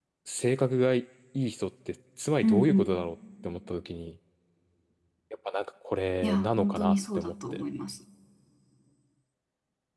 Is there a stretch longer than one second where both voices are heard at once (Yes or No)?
Yes